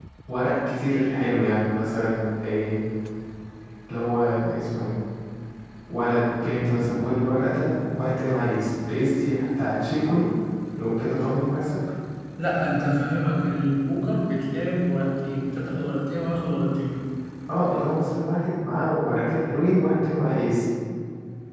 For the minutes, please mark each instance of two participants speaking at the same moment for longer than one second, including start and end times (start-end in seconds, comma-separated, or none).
none